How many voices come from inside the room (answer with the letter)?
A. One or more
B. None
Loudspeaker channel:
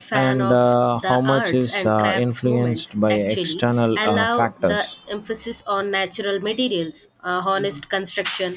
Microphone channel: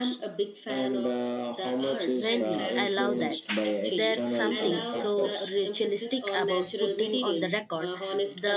A